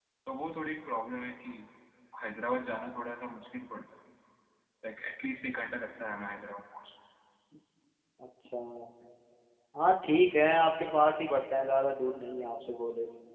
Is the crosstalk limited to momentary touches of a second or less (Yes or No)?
Yes